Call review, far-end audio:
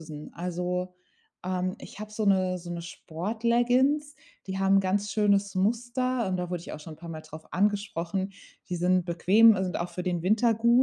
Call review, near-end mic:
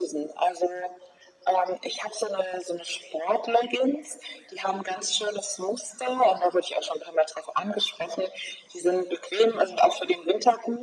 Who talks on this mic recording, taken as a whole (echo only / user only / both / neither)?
echo only